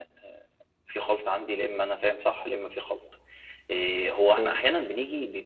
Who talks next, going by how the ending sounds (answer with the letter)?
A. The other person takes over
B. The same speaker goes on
B